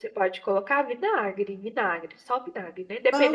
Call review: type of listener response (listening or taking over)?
listening